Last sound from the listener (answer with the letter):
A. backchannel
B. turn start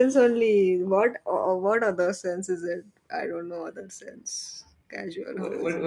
B